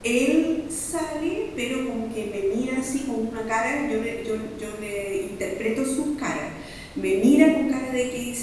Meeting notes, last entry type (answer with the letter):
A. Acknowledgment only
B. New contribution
A